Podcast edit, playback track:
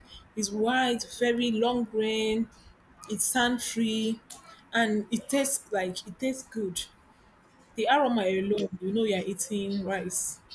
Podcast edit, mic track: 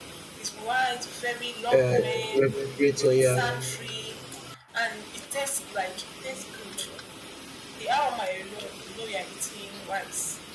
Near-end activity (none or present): present